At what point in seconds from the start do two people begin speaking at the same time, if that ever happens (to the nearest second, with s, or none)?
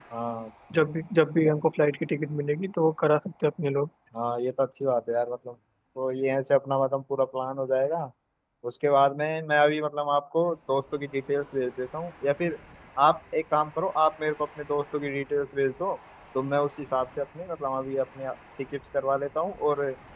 none